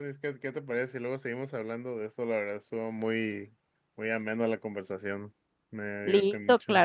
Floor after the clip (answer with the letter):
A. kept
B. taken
B